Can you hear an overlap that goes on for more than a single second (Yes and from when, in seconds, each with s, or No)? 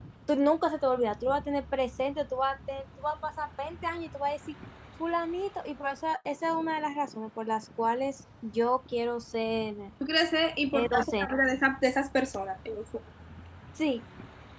No